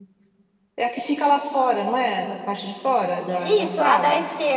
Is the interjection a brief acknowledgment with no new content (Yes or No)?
No